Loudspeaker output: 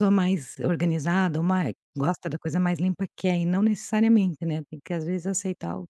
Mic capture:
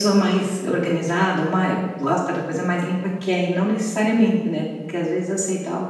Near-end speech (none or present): none